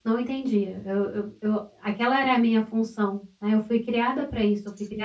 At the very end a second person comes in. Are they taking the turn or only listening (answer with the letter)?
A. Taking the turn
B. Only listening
B